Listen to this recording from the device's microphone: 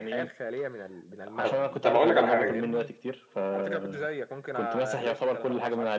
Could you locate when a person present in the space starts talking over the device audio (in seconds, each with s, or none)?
1.4 s